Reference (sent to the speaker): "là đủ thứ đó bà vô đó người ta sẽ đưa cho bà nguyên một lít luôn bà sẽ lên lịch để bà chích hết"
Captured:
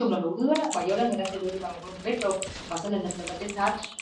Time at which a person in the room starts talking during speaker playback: none

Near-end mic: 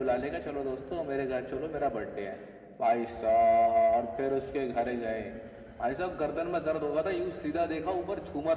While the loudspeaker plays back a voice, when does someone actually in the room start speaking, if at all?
none

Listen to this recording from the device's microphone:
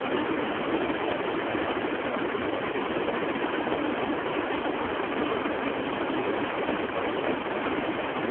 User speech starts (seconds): none

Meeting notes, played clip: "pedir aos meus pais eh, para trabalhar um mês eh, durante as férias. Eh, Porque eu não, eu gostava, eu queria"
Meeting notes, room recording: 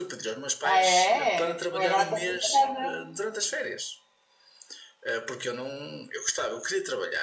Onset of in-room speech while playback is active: 0.6 s

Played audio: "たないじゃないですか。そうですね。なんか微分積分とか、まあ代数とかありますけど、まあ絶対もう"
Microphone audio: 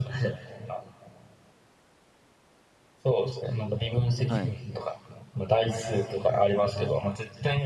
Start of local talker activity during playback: 4.2 s

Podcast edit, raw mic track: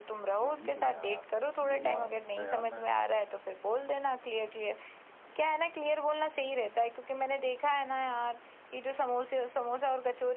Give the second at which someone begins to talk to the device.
0.4 s

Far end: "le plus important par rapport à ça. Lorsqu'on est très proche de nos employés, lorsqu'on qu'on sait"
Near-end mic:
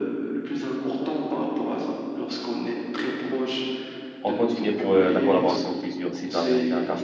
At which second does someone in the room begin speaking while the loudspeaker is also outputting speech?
4.2 s

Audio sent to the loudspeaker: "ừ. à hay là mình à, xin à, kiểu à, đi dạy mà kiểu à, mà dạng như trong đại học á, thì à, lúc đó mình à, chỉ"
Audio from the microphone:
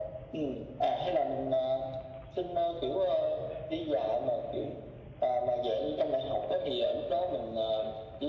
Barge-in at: none

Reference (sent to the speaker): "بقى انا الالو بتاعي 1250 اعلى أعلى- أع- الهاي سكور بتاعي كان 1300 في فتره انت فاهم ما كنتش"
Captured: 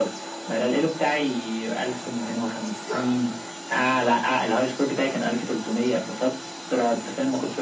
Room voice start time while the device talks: none

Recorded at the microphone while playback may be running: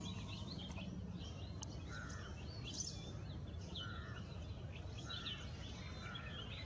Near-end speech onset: none

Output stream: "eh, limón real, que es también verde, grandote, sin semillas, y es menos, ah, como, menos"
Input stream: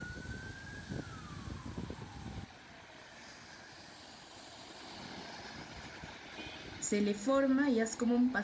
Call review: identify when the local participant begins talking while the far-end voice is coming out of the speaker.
6.8 s

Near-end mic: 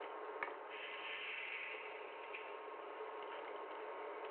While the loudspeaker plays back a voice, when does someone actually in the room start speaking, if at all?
none

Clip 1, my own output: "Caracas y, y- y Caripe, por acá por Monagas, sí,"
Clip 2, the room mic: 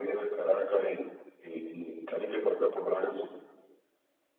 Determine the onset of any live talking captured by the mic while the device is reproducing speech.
none

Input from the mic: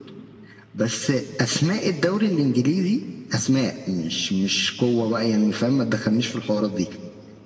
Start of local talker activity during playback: none

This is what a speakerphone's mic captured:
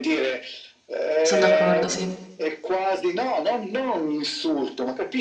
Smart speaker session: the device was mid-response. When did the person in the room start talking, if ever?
1.3 s

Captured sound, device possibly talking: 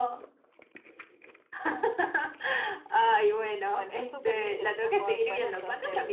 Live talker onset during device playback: 3.7 s

